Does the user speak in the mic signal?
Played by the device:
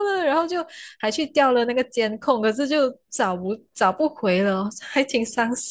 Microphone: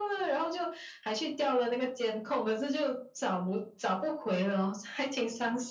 No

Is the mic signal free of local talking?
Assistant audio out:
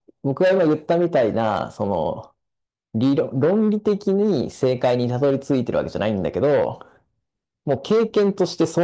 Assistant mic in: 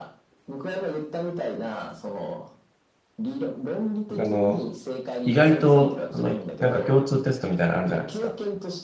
No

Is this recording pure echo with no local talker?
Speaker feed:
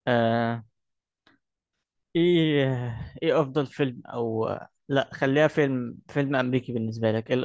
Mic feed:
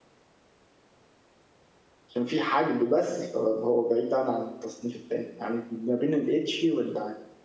No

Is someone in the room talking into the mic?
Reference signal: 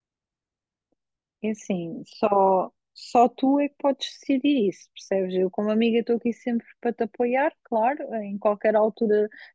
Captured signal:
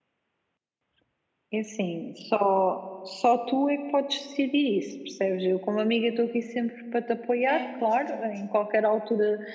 Yes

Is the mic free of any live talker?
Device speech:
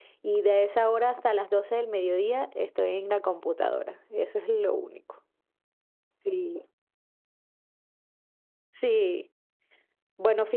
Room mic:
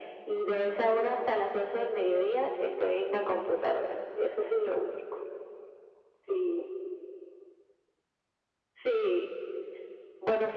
Yes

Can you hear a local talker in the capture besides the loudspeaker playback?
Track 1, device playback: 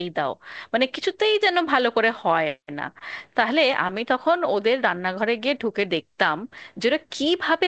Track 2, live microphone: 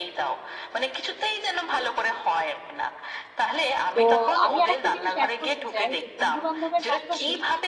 Yes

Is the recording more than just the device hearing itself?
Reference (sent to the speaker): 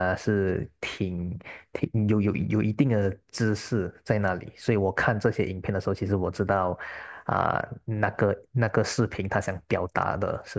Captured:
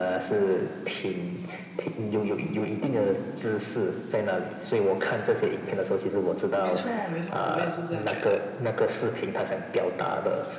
Yes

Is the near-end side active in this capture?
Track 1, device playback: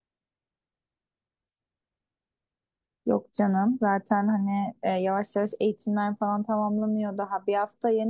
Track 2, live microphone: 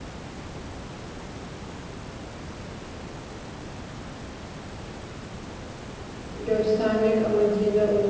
Yes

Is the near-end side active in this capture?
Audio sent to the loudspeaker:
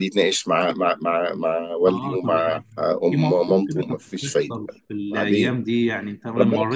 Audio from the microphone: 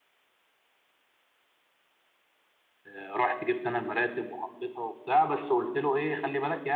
Yes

